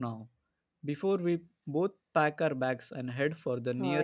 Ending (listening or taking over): taking over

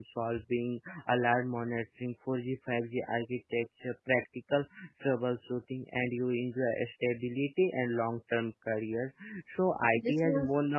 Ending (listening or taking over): listening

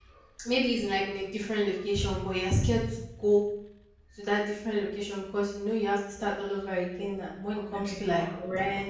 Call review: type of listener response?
listening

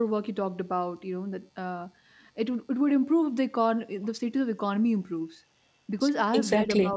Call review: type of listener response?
listening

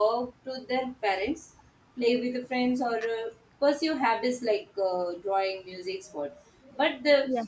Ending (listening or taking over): listening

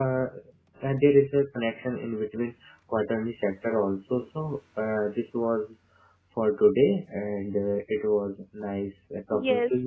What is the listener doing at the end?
taking over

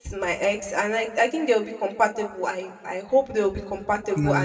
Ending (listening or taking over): listening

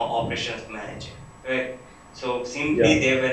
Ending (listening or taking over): listening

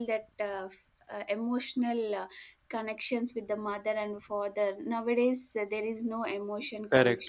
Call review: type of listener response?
taking over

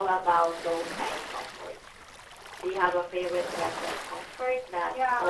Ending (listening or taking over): taking over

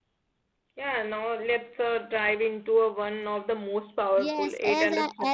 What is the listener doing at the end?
taking over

